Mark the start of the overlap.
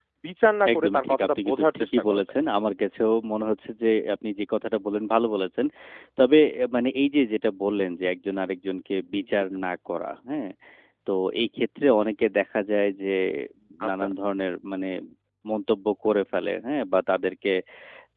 0.7 s

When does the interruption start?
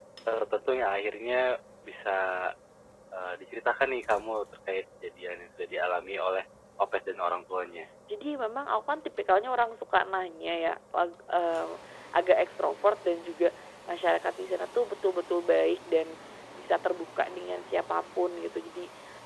none

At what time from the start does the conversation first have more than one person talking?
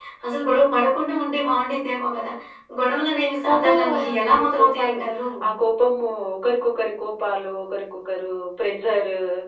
3.5 s

